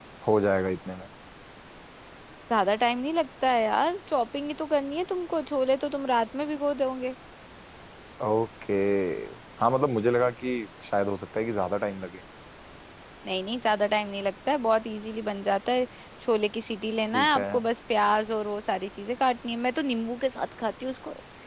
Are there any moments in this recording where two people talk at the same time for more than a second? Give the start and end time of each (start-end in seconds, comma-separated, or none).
none